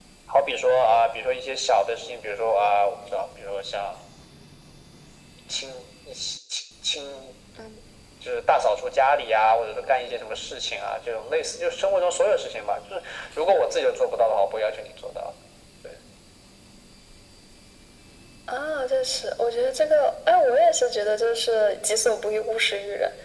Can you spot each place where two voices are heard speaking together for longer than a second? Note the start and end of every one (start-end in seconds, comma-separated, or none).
none